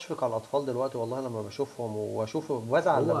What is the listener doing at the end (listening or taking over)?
taking over